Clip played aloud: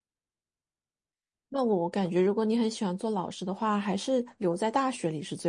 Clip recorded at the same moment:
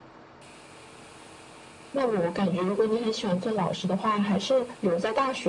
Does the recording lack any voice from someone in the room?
Yes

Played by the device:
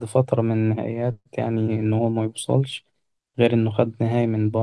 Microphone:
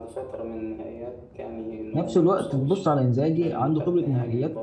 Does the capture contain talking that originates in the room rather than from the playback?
Yes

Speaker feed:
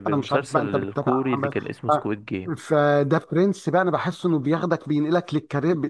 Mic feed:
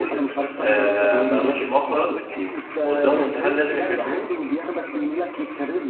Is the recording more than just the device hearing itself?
Yes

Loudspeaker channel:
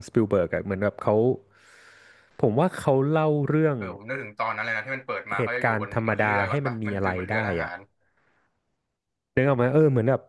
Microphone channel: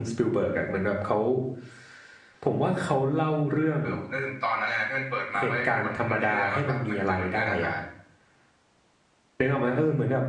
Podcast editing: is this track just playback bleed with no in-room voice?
Yes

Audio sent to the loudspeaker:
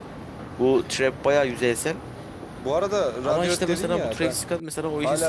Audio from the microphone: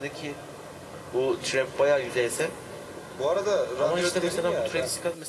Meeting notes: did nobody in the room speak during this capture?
Yes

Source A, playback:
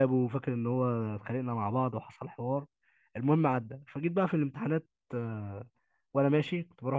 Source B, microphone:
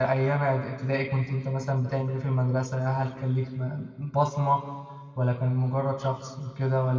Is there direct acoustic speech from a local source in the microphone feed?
Yes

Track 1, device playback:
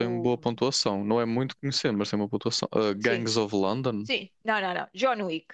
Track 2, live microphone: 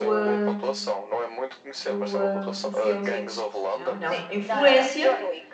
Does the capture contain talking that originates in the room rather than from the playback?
Yes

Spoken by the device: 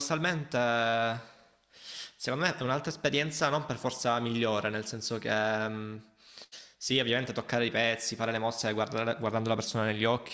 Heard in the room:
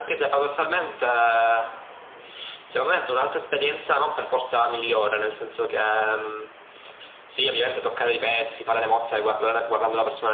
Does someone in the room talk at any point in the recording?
No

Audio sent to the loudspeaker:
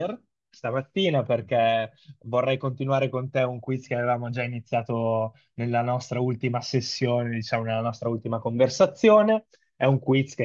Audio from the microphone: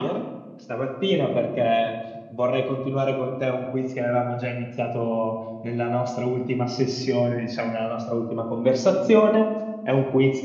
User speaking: No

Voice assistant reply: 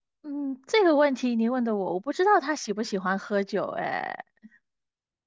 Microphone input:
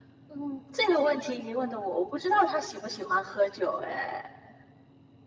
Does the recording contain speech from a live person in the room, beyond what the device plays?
No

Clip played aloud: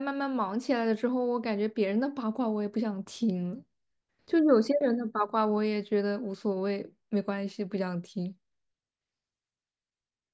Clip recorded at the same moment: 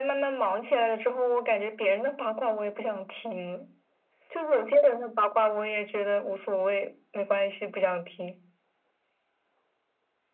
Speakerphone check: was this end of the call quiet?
Yes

